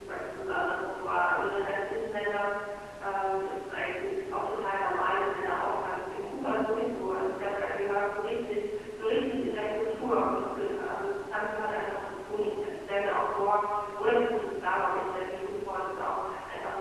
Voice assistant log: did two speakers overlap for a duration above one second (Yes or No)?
No